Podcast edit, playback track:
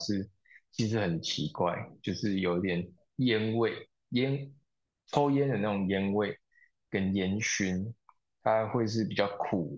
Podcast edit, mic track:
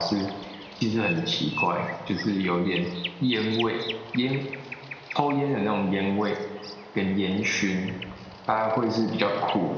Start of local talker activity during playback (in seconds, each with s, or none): none